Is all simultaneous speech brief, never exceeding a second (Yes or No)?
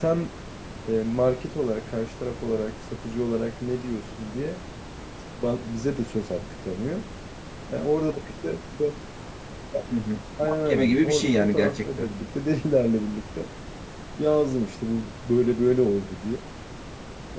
No